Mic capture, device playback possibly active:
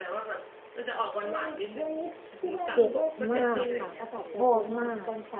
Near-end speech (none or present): present